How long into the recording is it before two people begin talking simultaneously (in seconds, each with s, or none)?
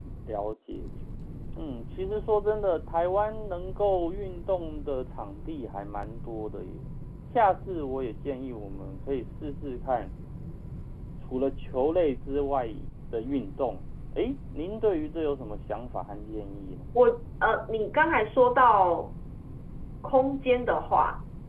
none